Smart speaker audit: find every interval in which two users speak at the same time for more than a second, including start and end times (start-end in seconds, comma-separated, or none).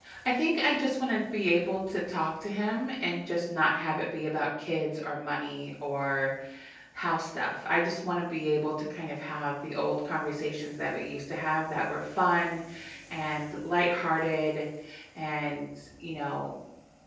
none